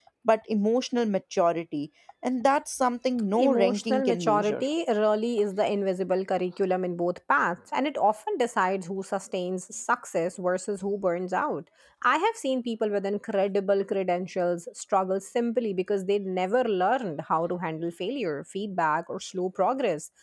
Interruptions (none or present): present